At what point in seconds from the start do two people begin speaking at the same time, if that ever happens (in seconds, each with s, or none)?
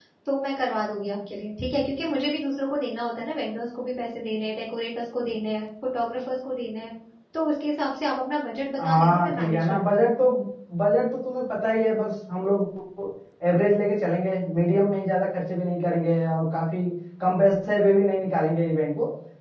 8.8 s